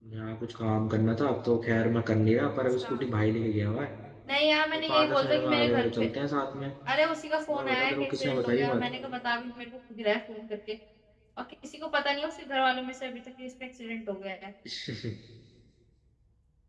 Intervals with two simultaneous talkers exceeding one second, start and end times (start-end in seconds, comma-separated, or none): 4.7-6.1, 7.5-8.8